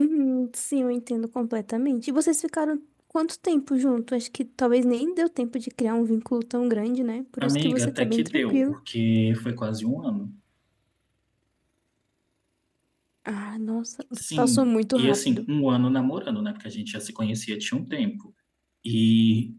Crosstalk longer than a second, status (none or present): present